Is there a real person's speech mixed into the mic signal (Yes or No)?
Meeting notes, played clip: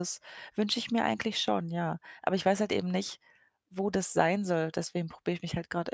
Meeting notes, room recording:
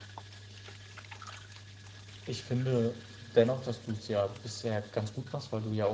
Yes